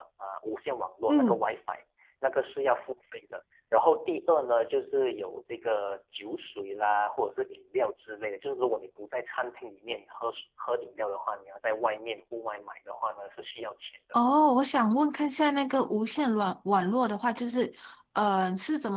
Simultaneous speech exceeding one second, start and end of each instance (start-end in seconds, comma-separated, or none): none